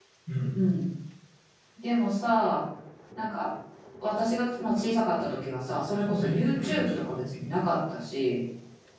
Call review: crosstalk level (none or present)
present